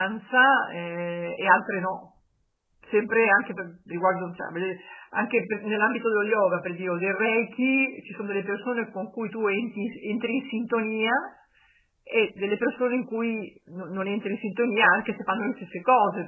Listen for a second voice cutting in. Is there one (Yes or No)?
No